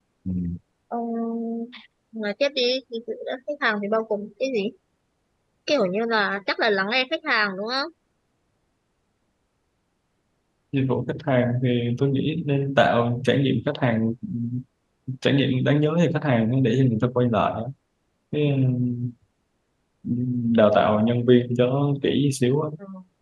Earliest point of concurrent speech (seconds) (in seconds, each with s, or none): none